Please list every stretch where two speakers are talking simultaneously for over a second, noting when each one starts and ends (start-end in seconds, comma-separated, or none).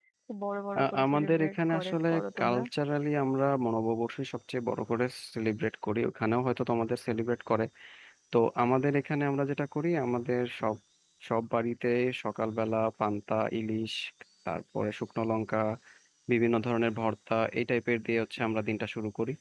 0.8-2.6